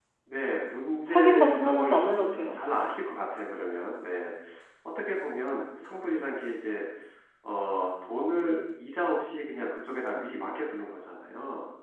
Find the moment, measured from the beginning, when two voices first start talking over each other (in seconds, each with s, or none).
1.1 s